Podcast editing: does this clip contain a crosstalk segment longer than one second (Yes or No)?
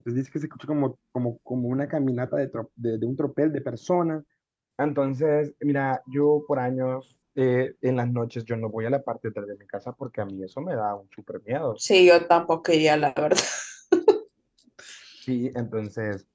No